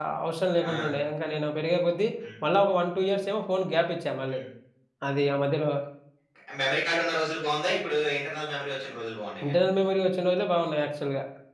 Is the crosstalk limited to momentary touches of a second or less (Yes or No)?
Yes